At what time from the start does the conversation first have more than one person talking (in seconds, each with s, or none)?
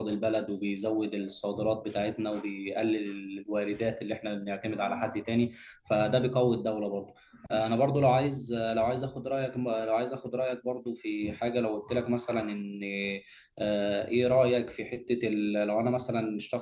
none